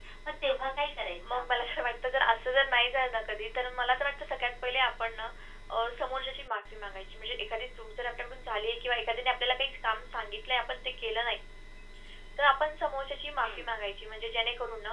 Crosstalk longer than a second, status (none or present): none